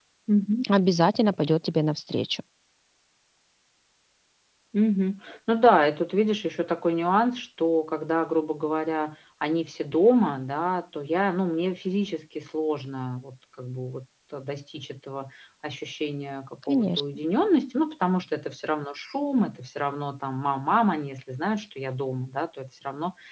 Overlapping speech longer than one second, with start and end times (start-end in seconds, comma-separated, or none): none